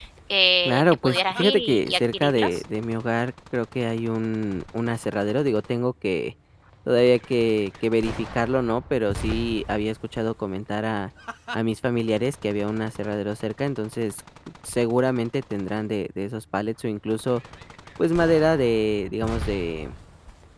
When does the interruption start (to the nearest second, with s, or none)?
1 s